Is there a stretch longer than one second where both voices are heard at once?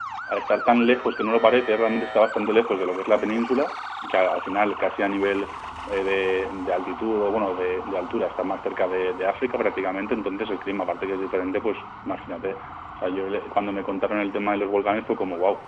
No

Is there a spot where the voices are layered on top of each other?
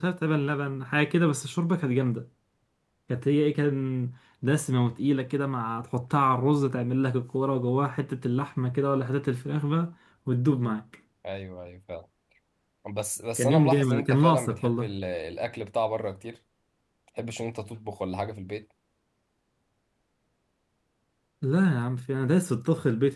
Yes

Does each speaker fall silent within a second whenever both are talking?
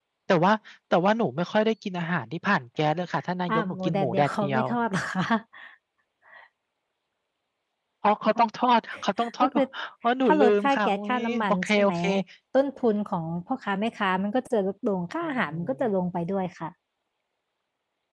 No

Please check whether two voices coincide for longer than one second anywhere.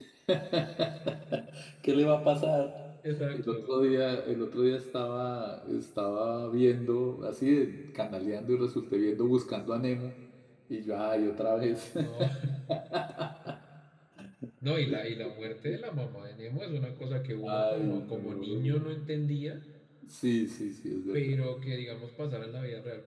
Yes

